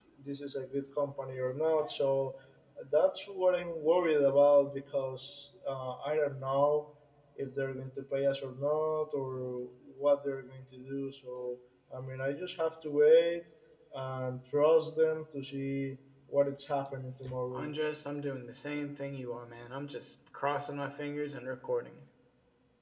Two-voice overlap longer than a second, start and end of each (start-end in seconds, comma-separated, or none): none